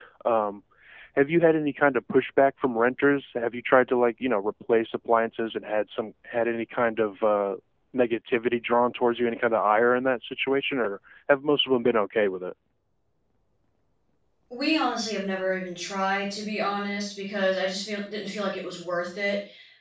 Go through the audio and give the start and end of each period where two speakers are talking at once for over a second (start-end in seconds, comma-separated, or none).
none